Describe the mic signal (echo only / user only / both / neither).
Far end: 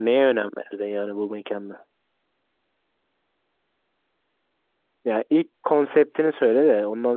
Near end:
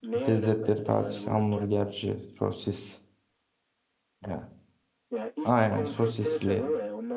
both